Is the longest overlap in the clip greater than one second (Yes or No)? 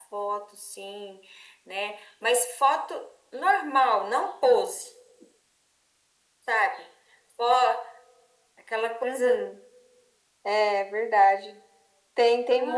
No